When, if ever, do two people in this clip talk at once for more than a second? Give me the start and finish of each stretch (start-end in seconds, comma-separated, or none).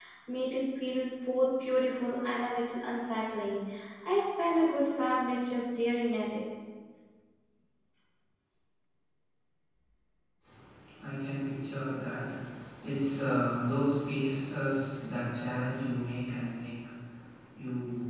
none